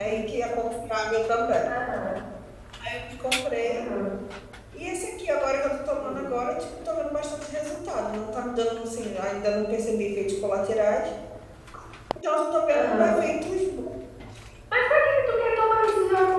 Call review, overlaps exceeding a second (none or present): none